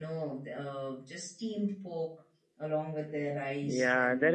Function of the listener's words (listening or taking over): taking over